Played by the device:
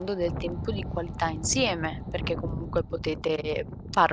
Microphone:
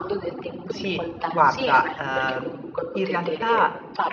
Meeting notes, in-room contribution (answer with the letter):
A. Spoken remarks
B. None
A